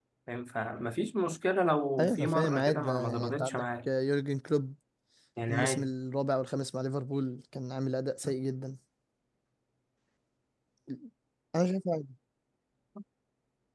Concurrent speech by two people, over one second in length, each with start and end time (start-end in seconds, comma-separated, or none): 2.0-3.9